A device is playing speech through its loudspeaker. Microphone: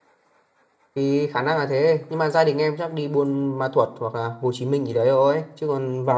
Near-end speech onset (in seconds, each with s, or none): 1.0 s